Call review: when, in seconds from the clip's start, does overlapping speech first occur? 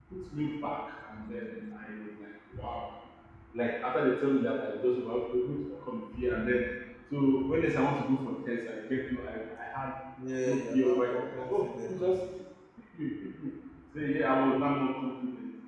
10.4 s

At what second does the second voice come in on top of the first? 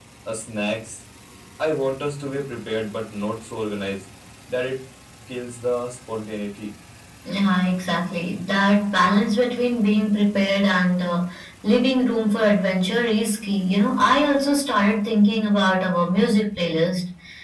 none

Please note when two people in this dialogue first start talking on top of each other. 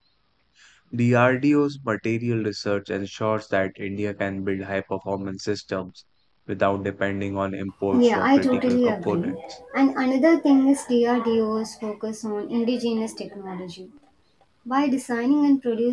7.9 s

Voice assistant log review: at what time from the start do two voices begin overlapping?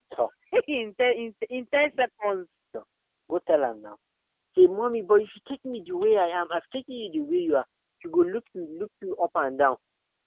none

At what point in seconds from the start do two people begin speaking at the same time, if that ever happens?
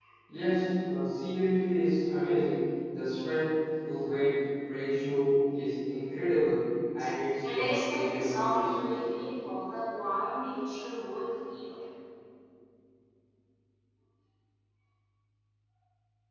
7.4 s

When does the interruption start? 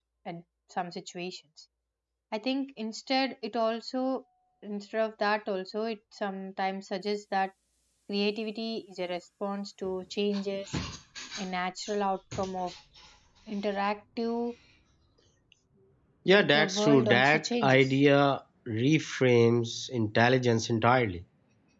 16.3 s

